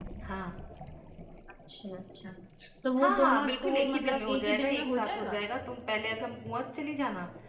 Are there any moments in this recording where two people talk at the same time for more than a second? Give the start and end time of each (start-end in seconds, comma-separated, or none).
3.0-5.4